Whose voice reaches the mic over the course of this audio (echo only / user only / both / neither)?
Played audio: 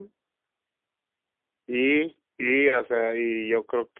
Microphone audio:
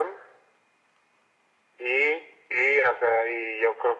echo only